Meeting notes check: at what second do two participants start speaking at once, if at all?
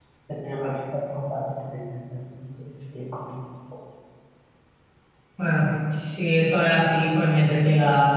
none

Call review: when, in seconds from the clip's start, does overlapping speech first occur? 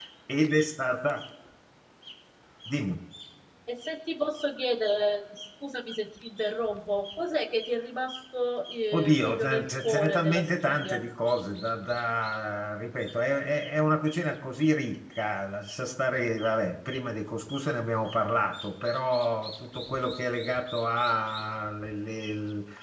9 s

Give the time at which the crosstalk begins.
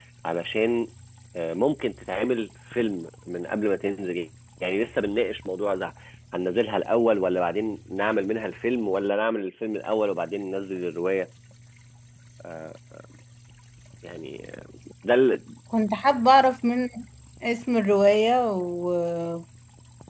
none

